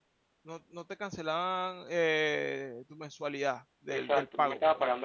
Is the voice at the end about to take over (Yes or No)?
Yes